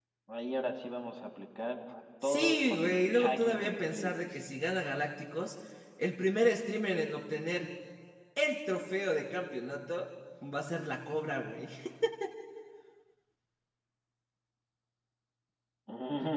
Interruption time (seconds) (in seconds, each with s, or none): 2.2 s